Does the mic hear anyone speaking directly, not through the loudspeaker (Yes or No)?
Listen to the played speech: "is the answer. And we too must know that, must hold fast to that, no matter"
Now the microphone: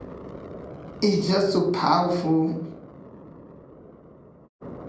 Yes